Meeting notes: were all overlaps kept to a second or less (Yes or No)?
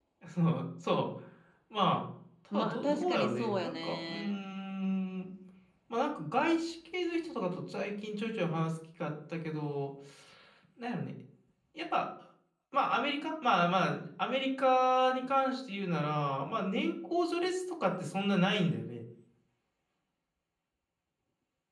No